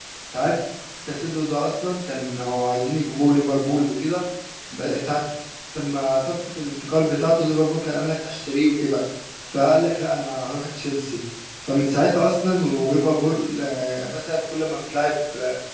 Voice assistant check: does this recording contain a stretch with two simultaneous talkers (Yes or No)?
No